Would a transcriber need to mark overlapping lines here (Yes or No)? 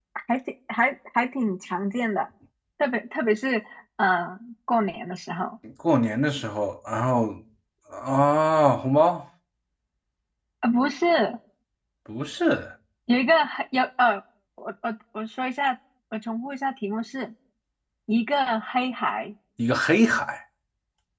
No